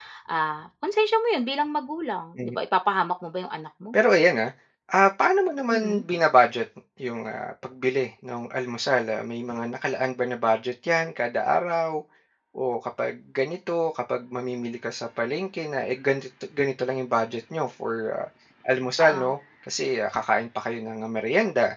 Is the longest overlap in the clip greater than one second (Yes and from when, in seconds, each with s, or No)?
No